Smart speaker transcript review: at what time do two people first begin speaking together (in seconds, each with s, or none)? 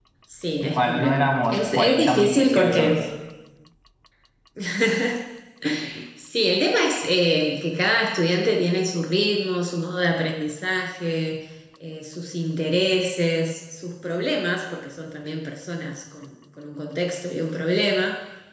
0.6 s